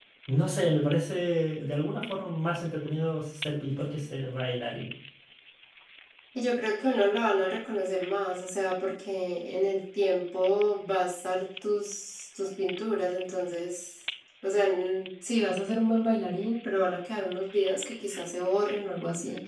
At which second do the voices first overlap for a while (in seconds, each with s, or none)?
none